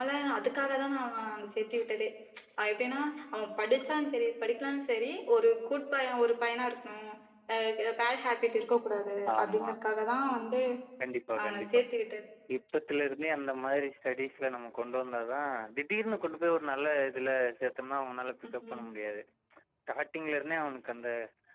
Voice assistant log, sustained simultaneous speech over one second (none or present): none